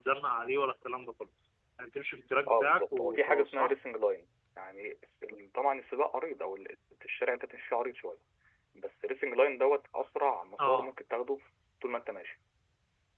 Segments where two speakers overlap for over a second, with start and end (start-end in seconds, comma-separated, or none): 2.5-3.7